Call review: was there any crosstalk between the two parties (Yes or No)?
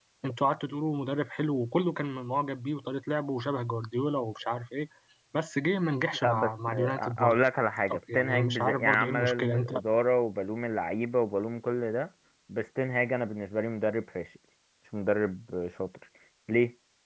Yes